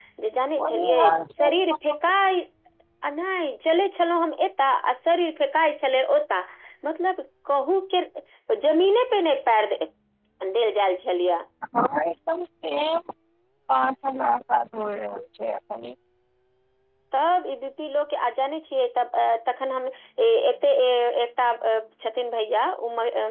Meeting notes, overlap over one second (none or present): present